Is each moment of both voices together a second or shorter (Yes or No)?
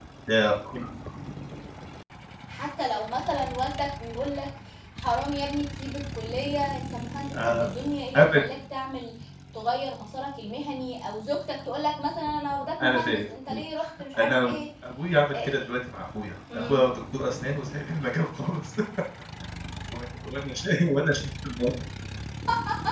Yes